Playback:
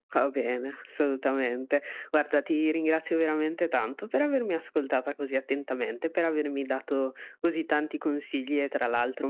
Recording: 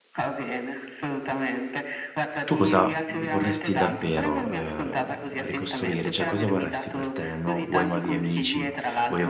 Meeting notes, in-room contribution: present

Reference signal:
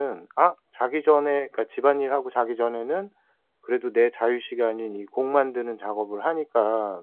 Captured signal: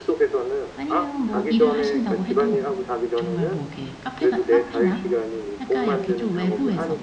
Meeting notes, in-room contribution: present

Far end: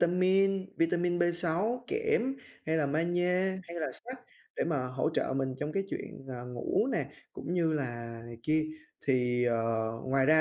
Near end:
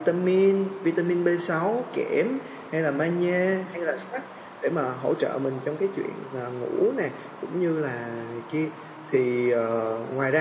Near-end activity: none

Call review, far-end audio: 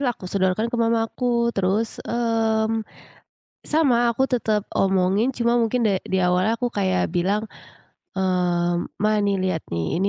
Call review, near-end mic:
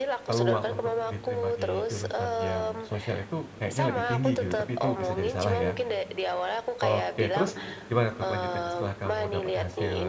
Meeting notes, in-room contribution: present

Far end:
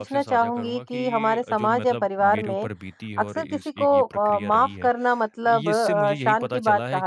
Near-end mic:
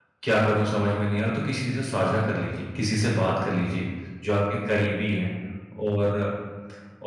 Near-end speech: present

